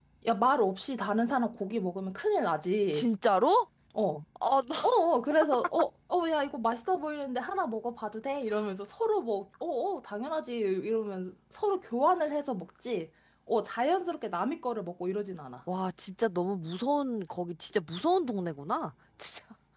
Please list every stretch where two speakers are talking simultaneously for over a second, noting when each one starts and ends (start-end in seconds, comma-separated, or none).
none